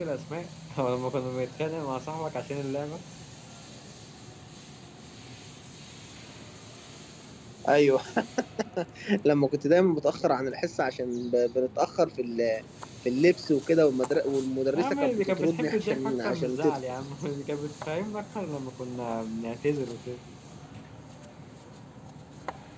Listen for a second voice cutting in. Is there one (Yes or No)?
Yes